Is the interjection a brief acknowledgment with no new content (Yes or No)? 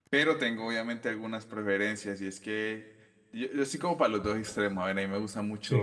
Yes